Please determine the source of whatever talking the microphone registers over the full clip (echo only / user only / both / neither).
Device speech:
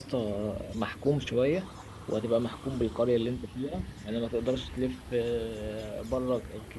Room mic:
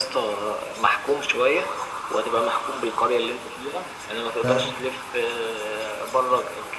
both